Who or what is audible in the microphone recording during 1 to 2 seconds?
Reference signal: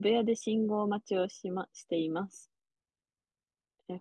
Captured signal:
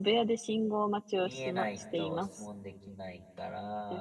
both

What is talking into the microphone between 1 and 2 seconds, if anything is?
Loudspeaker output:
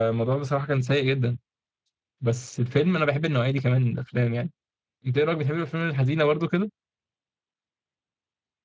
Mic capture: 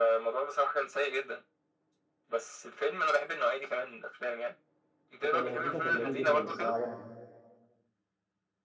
echo only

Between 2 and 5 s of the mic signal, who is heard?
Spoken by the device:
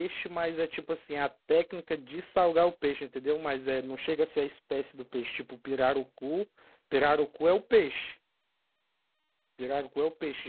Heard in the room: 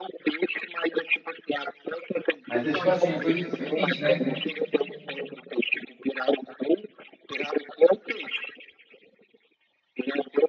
both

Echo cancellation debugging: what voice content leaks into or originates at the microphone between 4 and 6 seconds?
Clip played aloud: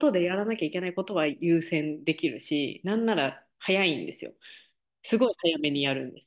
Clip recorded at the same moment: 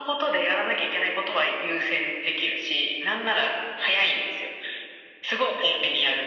echo only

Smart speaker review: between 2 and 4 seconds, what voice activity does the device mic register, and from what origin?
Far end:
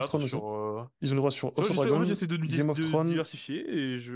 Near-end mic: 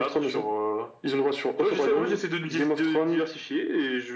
echo only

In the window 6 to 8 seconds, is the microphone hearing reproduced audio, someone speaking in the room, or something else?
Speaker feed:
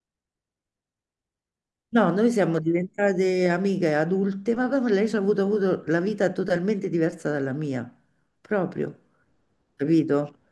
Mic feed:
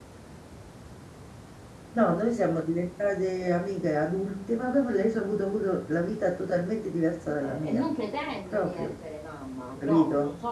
both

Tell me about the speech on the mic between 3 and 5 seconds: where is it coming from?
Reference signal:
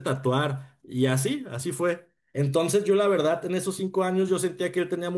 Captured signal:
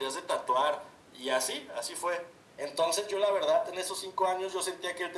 echo only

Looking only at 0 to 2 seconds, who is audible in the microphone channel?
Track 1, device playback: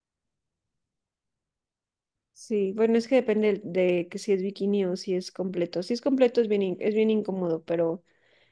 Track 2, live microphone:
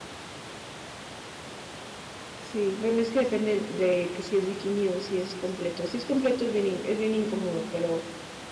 neither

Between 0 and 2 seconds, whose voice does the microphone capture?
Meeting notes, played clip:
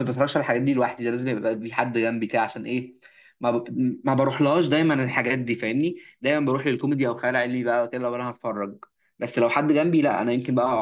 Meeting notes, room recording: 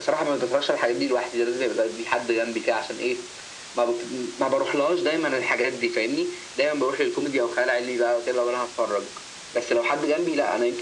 echo only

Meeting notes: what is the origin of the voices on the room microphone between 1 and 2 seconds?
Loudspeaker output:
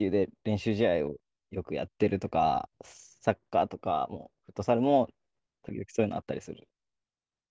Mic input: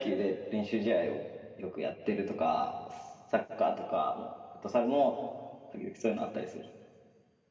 echo only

